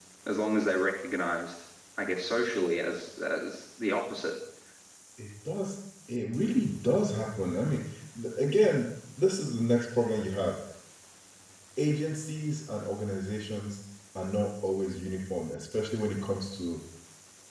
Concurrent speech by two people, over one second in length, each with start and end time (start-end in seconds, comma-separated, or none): none